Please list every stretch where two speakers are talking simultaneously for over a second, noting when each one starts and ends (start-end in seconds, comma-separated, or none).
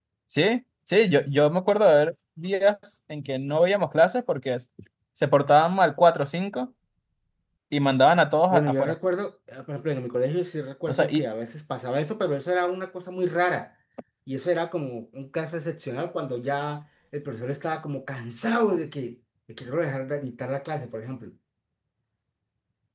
none